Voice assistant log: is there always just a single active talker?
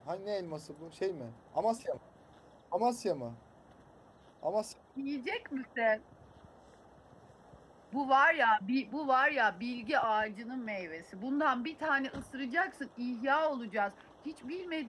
Yes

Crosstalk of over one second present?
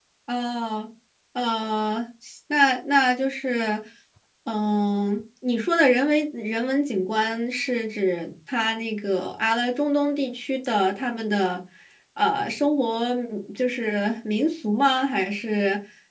No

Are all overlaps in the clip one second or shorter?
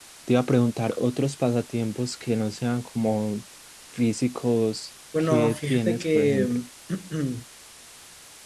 No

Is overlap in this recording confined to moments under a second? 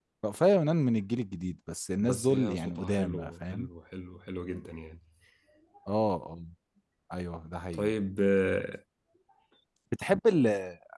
No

